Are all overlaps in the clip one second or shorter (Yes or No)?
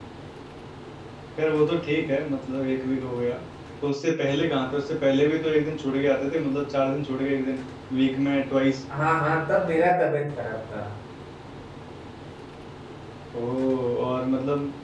Yes